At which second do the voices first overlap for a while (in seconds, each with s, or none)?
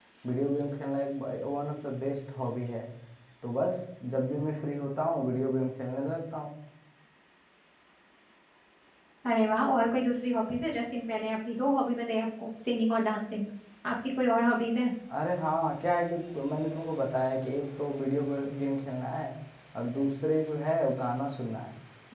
none